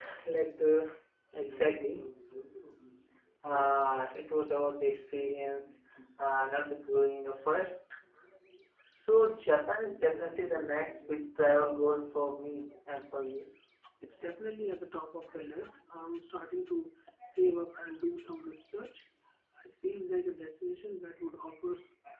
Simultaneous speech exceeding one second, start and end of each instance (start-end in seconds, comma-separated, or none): none